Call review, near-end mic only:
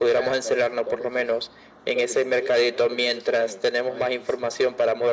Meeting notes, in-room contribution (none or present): none